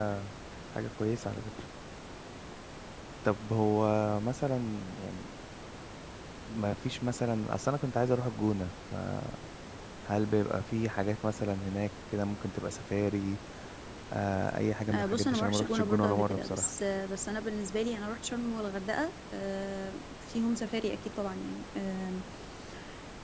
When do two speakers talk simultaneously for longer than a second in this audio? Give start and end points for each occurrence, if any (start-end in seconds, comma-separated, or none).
14.9-16.7